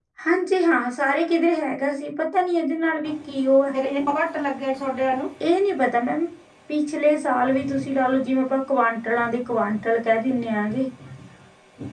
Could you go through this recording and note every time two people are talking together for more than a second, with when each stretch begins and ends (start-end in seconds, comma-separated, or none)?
none